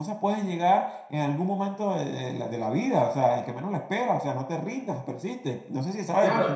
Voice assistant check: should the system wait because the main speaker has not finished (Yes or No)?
No